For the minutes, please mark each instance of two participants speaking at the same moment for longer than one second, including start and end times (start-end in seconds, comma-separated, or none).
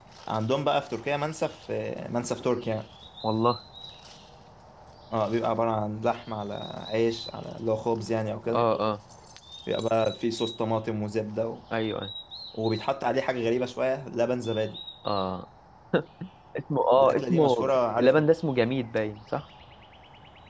17.0-18.2